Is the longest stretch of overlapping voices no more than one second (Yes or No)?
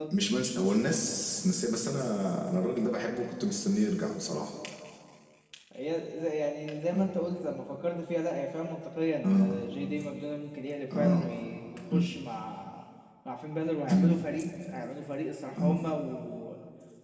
Yes